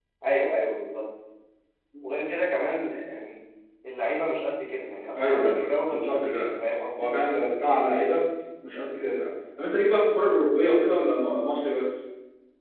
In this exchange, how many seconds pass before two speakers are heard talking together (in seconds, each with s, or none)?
5.1 s